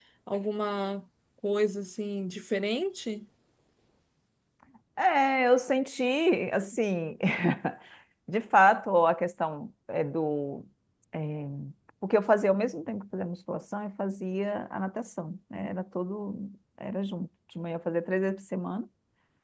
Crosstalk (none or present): none